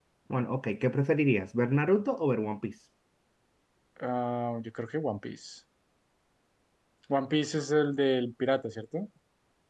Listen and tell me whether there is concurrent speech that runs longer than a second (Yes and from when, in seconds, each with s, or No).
No